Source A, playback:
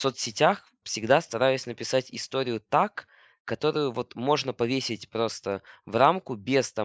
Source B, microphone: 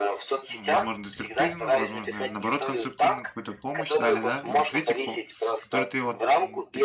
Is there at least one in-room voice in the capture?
Yes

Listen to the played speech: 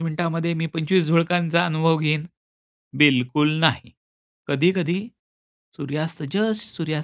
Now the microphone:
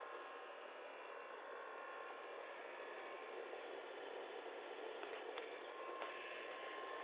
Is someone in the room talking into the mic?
No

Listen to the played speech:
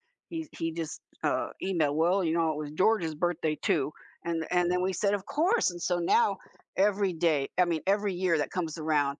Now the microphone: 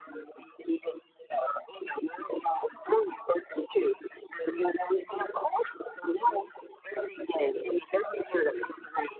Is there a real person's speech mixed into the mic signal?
No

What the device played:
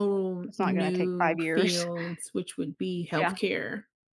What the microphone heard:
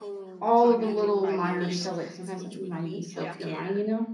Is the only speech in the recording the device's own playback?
No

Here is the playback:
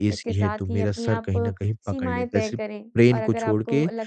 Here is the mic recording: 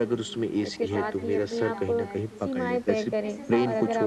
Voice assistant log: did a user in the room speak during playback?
Yes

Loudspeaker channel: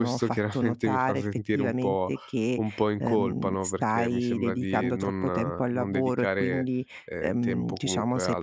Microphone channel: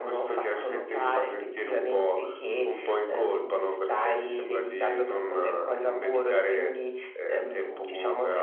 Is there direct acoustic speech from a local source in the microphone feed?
No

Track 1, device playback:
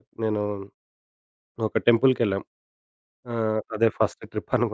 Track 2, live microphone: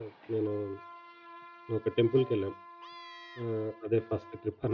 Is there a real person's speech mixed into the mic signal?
No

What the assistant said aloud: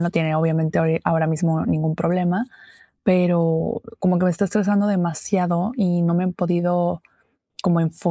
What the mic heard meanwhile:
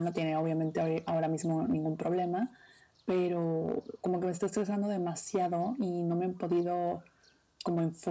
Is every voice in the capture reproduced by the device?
Yes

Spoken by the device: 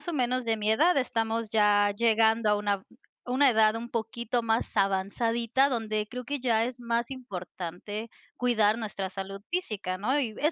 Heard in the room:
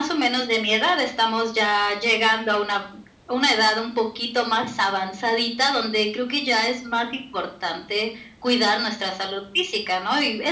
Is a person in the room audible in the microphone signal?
No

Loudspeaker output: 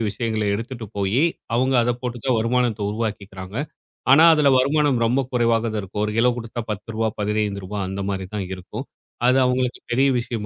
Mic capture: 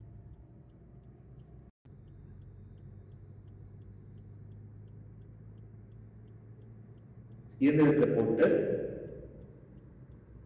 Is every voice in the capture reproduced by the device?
No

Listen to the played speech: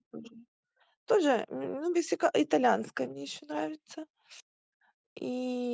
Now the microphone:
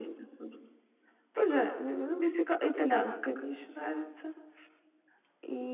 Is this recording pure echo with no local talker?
Yes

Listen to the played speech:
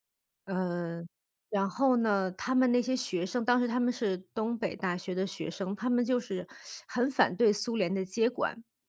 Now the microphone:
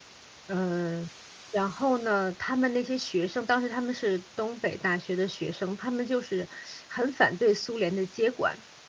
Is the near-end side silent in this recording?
Yes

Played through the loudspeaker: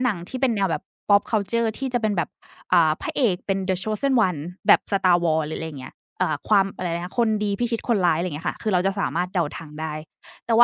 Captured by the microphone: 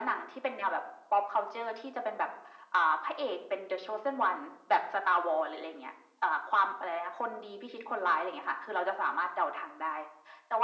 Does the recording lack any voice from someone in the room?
Yes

